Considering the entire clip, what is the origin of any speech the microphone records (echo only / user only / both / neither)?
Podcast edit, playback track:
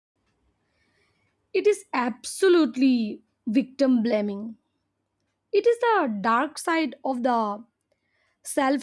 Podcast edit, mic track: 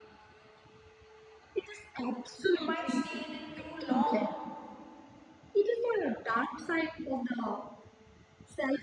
both